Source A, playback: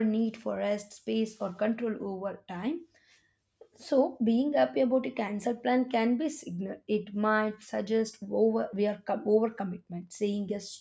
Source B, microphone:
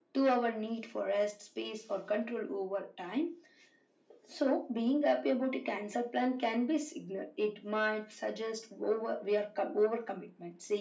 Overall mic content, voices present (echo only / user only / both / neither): echo only